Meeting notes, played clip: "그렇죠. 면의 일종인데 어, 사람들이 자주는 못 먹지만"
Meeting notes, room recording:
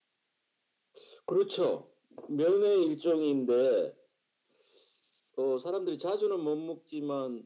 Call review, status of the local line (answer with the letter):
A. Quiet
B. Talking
A